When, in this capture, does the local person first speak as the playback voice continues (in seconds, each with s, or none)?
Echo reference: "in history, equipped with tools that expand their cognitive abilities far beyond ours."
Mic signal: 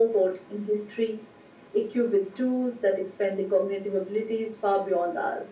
none